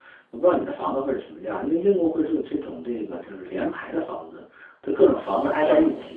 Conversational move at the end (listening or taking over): listening